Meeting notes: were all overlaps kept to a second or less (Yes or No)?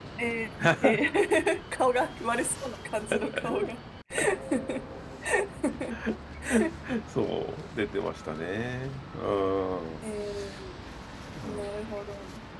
Yes